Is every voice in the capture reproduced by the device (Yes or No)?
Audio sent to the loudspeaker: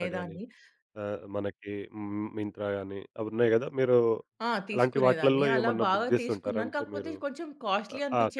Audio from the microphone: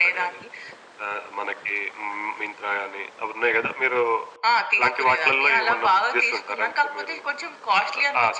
Yes